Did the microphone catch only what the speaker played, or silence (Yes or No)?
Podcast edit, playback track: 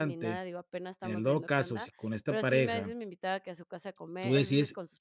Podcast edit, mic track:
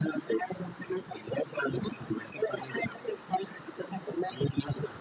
Yes